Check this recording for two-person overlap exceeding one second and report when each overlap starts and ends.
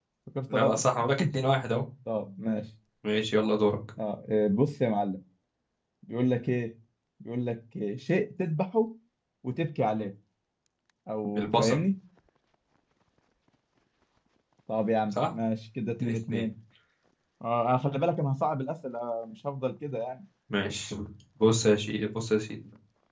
none

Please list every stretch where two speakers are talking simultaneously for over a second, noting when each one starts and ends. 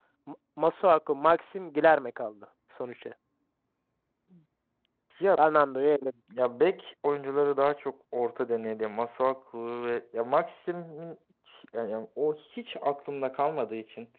none

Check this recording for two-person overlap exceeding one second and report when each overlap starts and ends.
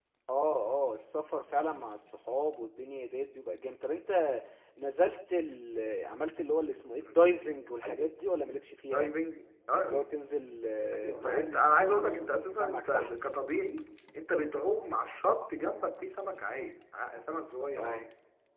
10.9-13.1

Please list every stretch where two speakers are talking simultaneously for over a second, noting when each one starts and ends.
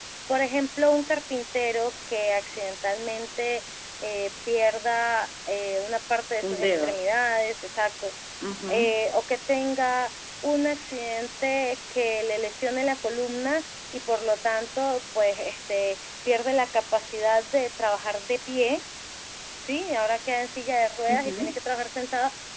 none

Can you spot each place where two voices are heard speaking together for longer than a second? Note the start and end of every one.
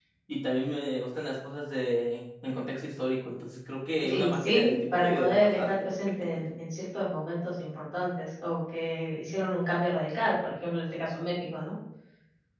4.0-5.7

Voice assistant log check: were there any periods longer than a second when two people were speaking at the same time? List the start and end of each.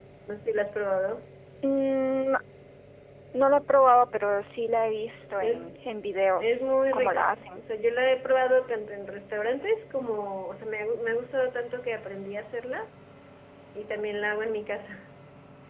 6.4-7.6

